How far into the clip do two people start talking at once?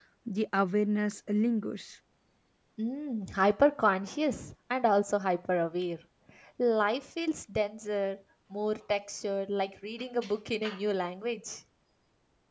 none

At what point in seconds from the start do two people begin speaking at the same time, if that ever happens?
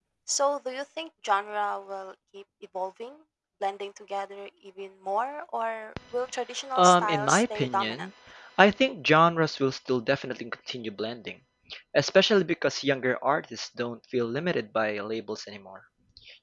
7 s

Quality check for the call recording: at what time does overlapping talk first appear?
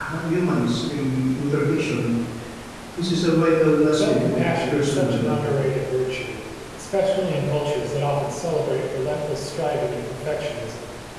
4 s

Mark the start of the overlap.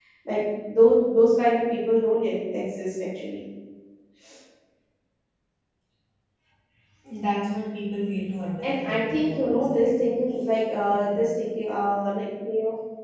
9 s

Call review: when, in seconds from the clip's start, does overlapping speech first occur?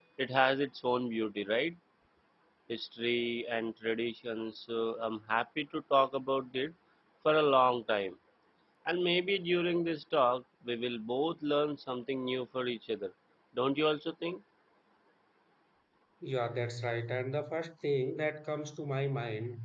none

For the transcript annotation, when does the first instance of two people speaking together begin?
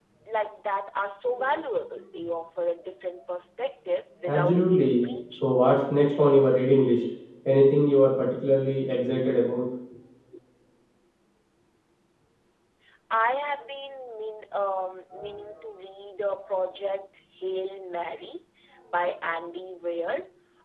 4 s

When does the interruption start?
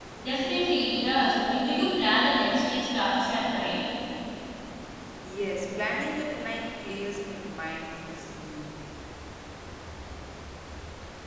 none

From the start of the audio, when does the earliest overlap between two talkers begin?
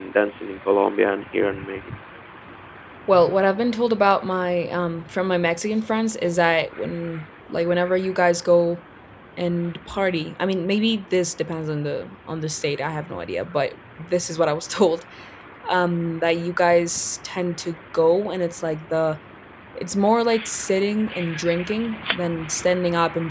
none

